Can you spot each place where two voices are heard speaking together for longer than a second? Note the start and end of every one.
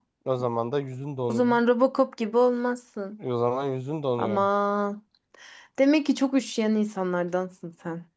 none

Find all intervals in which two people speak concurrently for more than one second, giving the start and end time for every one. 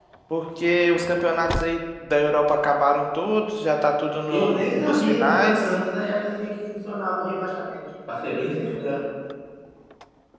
4.3-5.8

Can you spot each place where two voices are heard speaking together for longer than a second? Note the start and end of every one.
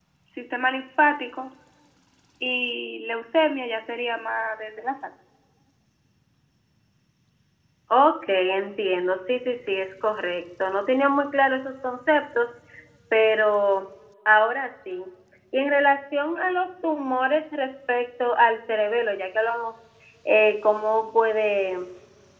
none

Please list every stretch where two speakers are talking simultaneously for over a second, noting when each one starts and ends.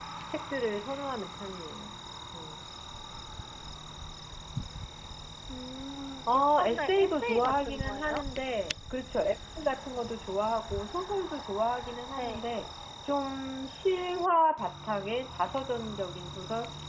6.3-8.2

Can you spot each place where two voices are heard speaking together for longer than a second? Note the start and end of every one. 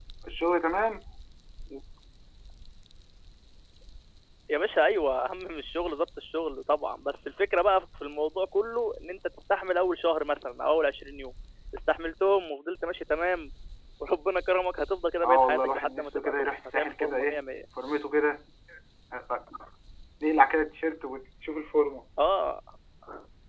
15.2-17.4

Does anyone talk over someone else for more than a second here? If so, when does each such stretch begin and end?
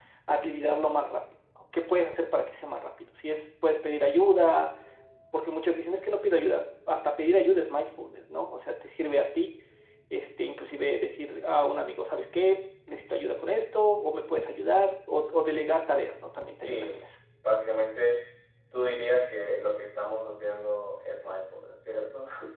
none

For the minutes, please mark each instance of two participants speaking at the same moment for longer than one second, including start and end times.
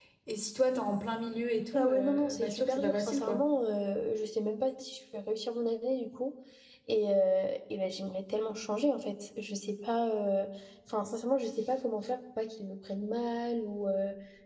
1.7-3.4

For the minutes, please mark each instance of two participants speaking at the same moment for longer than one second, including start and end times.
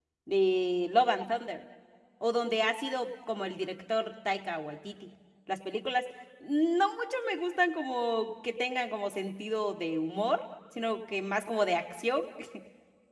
none

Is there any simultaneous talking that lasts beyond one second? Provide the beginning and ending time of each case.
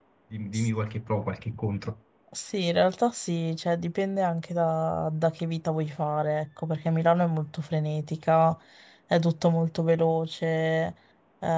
none

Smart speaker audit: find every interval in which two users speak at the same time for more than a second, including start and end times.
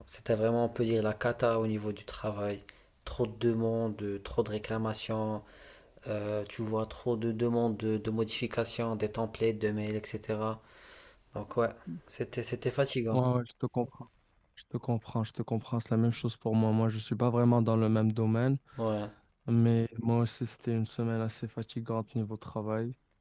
none

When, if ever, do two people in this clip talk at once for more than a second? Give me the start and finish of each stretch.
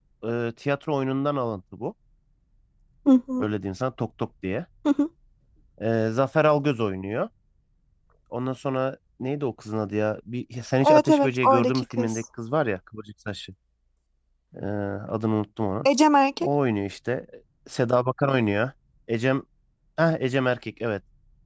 10.9-12.2

